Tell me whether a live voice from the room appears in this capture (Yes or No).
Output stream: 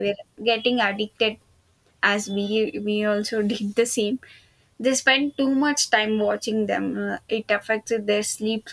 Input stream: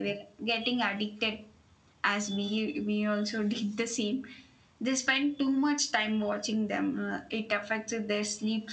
No